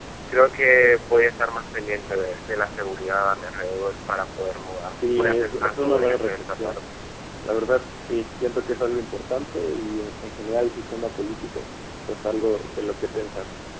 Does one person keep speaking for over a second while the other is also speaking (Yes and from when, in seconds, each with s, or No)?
Yes, from 4.9 s